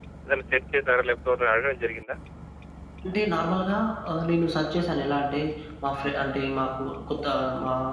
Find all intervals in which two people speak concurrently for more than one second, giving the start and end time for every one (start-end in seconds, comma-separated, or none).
none